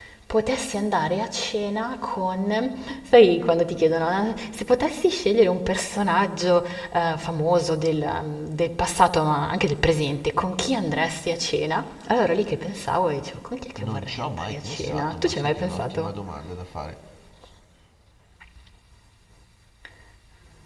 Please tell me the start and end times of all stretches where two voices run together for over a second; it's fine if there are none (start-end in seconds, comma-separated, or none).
13.8-16.1